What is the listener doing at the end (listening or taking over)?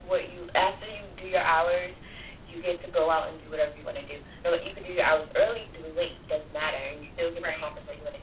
listening